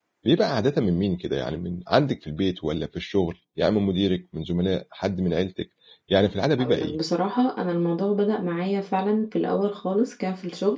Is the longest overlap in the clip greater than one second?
No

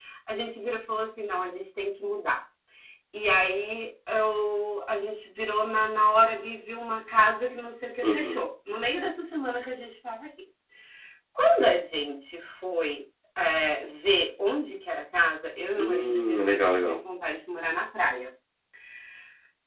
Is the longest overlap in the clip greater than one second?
Yes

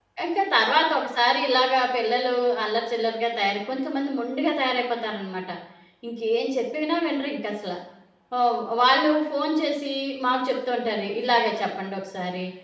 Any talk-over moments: No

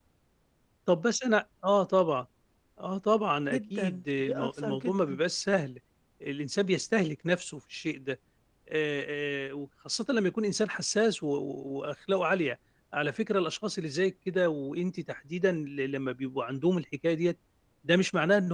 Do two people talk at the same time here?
Yes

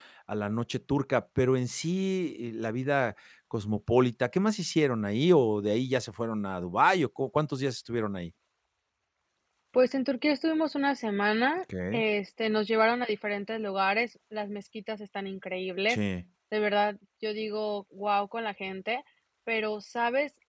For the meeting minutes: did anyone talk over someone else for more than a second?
No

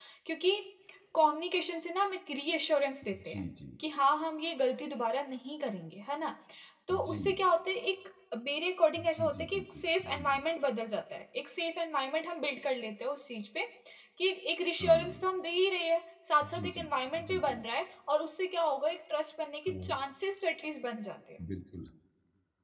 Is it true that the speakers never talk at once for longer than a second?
No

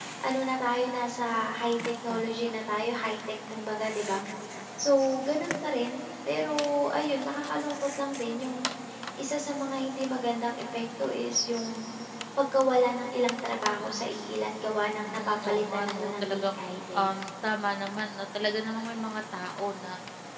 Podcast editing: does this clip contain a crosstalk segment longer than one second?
Yes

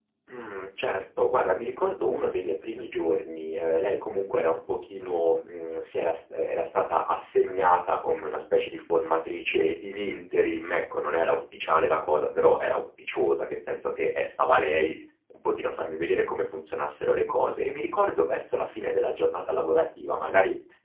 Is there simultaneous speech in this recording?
No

